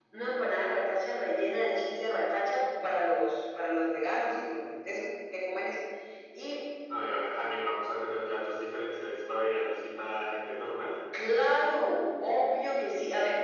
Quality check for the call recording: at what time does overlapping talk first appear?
none

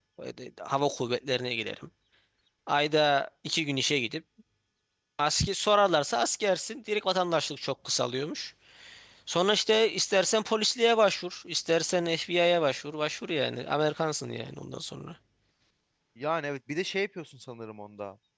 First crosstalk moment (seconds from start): none

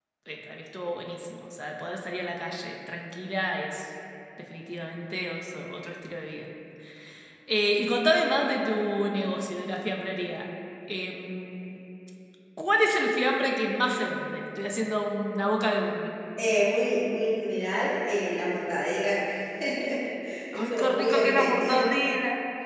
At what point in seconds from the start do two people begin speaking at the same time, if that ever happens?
20.5 s

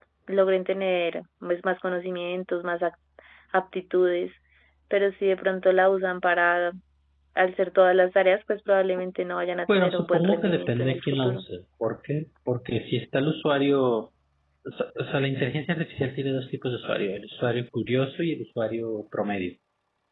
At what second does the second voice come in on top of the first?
9.7 s

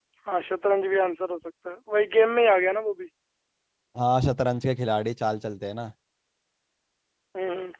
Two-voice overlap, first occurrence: none

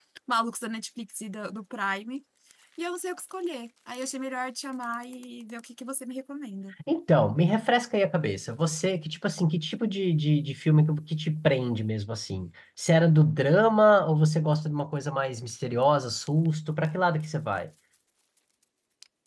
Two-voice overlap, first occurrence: none

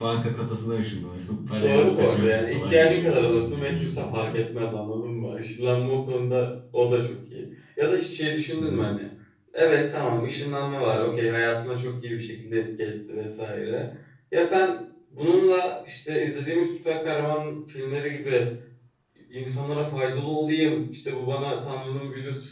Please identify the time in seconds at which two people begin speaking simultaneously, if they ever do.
1.6 s

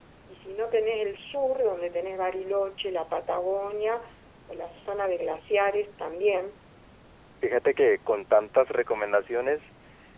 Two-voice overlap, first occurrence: none

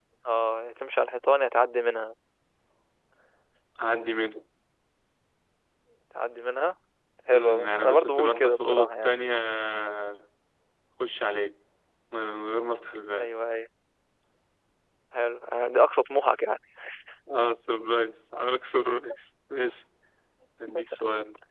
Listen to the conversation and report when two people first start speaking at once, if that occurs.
7.3 s

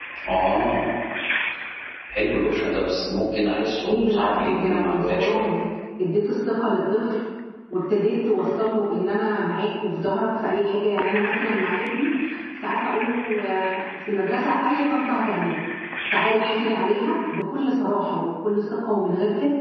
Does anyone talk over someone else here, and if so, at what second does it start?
3.9 s

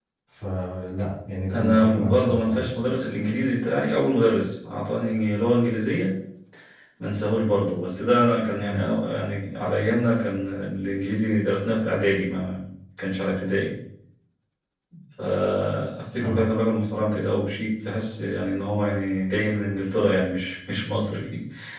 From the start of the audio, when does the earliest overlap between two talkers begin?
1.5 s

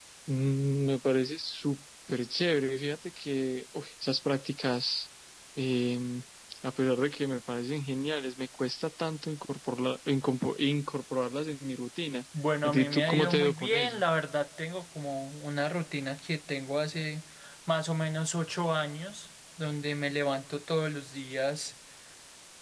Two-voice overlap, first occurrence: 12.6 s

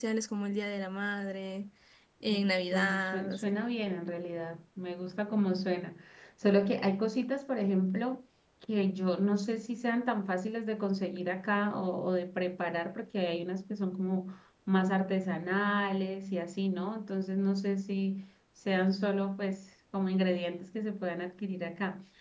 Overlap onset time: 2.3 s

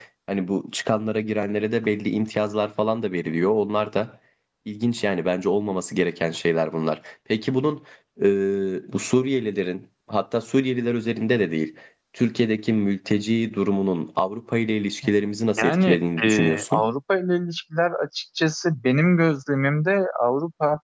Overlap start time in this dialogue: 15.6 s

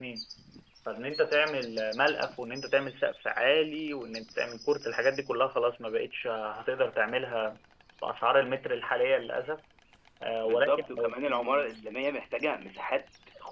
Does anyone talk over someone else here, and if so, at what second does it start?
10.4 s

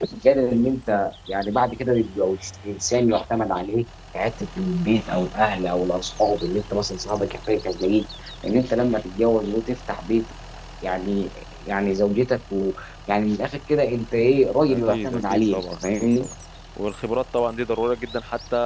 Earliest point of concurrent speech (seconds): 14.7 s

